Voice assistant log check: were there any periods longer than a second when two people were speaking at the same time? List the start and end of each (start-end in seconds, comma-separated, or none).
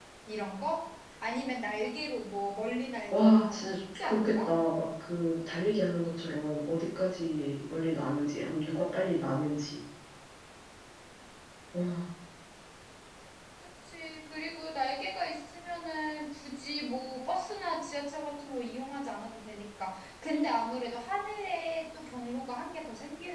3.1-4.5